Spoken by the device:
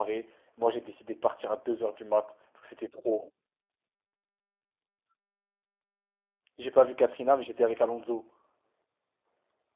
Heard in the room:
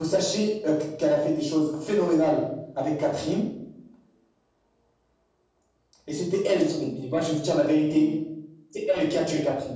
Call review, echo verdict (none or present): none